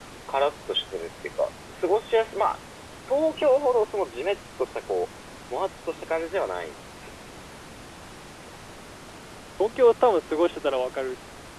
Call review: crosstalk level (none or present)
none